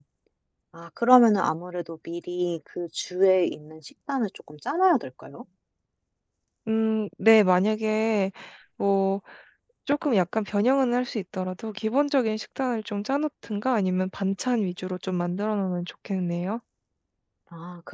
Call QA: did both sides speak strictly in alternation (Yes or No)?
Yes